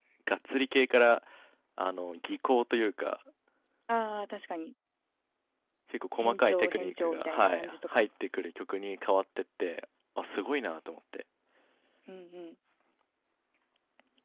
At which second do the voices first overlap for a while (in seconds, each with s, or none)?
6.2 s